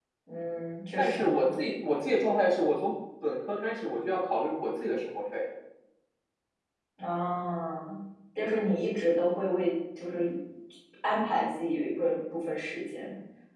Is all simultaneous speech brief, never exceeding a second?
Yes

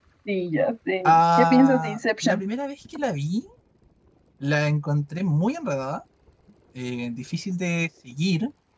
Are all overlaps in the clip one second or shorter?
No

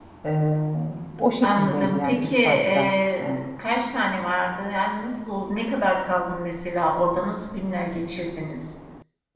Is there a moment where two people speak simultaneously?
Yes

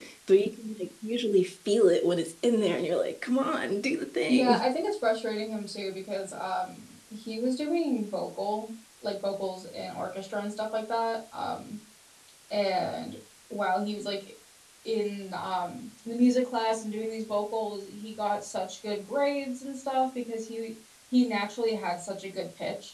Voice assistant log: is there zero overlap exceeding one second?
Yes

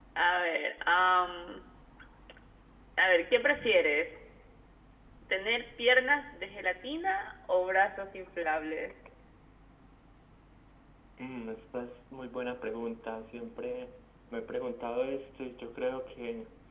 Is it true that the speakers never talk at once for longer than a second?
Yes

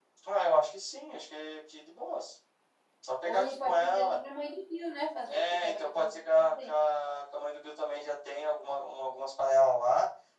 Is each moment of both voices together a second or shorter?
No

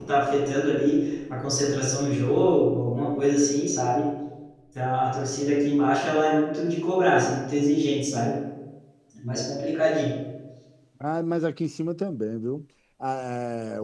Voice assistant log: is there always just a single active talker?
Yes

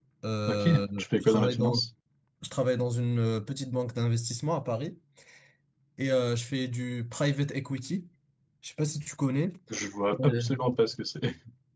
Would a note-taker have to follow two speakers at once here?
Yes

